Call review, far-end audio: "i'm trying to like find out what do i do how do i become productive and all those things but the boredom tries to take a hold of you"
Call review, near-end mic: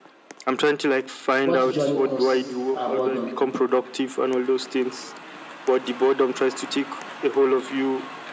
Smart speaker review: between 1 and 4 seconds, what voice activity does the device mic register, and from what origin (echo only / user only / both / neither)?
both